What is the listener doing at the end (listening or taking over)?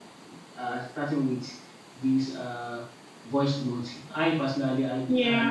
listening